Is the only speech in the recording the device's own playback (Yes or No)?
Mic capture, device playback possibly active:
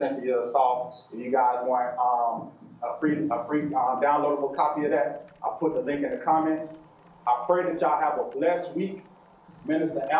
No